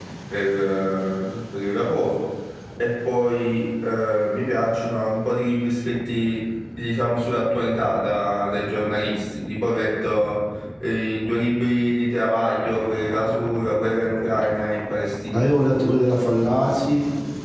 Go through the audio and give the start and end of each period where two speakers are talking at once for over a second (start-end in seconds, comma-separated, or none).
none